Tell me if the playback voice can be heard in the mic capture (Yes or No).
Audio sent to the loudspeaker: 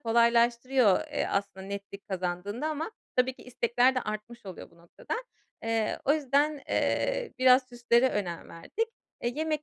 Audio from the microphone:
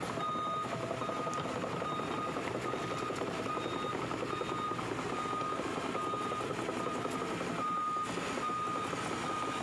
No